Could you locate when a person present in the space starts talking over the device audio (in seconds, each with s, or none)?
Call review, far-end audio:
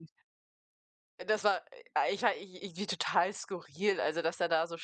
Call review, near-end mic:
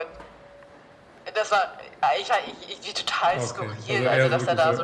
3.3 s